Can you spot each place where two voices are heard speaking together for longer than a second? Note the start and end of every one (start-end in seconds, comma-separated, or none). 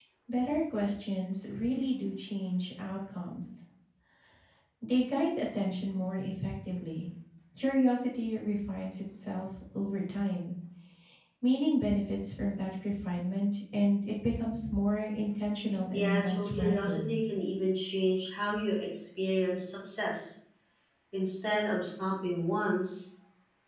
15.9-17.2